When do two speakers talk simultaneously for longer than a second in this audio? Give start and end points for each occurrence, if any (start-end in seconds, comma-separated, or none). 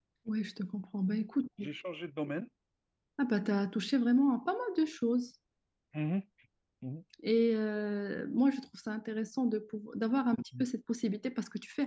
none